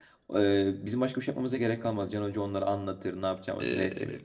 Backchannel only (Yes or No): No